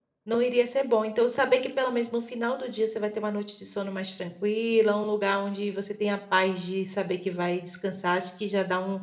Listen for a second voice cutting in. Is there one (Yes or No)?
No